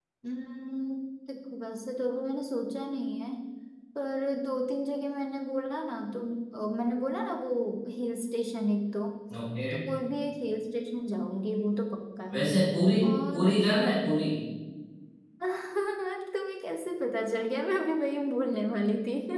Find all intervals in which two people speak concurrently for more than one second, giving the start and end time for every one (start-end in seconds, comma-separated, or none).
none